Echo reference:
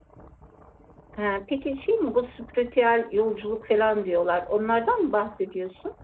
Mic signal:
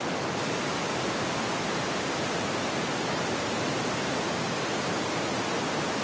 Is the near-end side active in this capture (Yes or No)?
No